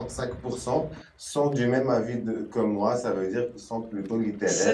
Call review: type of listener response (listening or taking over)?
taking over